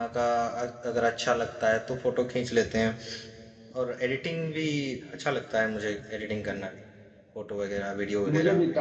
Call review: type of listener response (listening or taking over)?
taking over